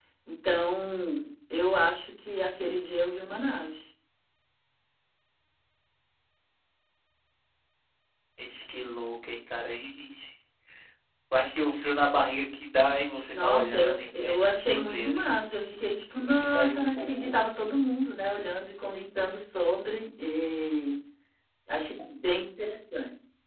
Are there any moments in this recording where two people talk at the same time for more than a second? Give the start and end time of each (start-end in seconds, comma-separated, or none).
13.3-15.2, 16.2-17.4